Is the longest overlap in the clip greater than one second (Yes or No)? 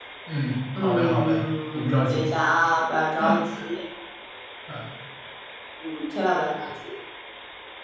Yes